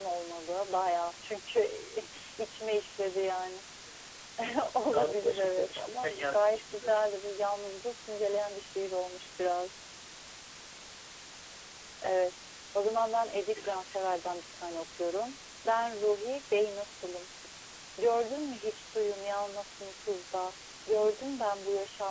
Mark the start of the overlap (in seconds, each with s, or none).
4.8 s